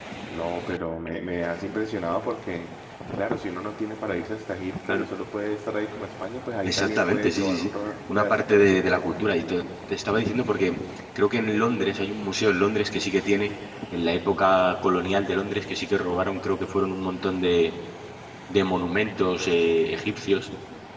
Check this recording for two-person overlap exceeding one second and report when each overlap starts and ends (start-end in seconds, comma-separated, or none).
6.6-9.1